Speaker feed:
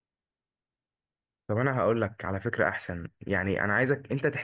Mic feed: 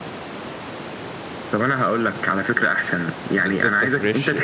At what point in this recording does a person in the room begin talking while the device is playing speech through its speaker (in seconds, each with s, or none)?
3.3 s